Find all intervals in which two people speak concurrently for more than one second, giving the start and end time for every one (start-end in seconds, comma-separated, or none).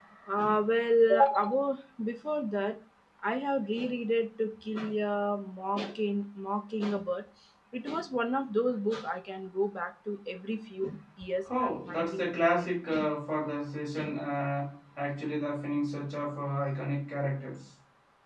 11.6-13.1